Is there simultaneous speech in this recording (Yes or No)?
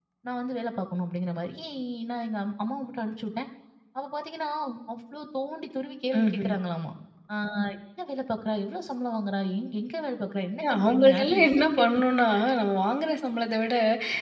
Yes